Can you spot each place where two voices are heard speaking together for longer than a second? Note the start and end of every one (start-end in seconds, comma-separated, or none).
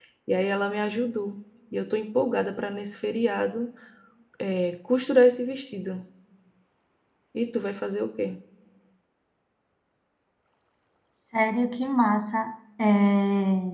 none